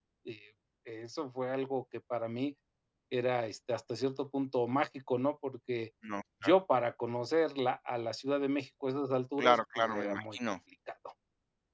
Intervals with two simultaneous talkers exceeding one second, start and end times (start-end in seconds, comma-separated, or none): 9.4-10.6